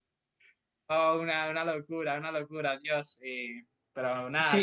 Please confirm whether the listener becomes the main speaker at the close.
Yes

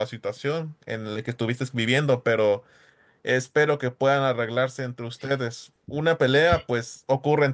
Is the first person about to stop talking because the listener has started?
No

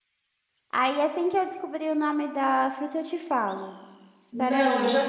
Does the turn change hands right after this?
Yes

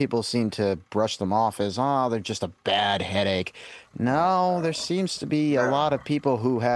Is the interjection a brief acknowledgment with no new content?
Yes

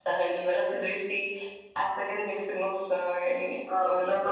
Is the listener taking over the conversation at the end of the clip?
Yes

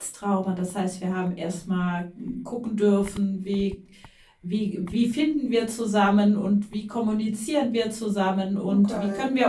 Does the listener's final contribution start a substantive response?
No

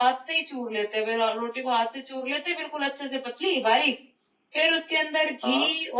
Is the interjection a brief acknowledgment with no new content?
Yes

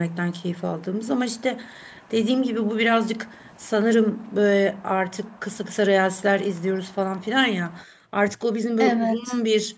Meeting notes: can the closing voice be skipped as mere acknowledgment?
Yes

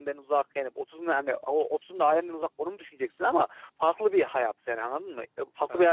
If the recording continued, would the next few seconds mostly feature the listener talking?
No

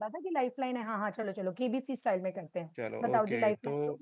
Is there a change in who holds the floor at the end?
Yes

